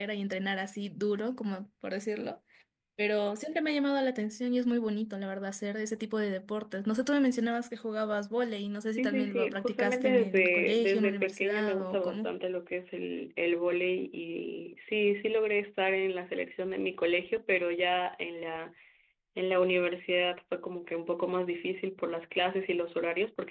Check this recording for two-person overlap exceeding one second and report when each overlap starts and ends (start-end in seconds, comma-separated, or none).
9.0-12.3